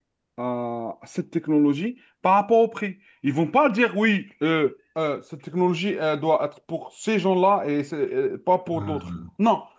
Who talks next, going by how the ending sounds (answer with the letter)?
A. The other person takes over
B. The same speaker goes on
B